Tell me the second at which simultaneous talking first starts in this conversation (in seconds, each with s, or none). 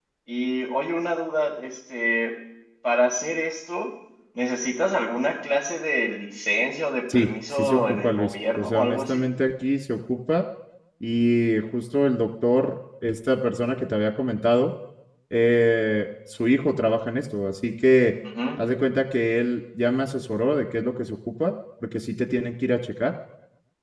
7.1 s